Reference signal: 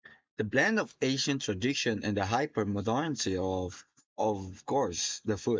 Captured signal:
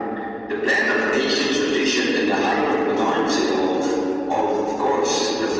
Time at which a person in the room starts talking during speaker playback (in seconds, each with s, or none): none